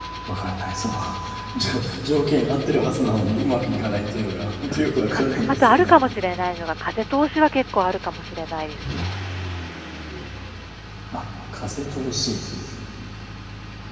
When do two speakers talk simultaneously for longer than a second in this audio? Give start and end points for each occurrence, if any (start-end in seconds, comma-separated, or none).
4.6-6.0